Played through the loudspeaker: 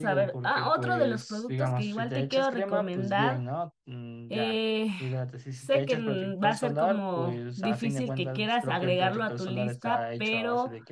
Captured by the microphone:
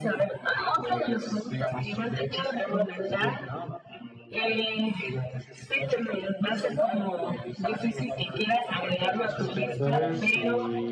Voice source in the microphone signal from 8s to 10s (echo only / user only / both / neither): both